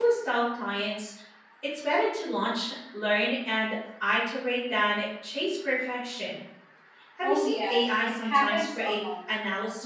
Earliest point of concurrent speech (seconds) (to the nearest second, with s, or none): 7 s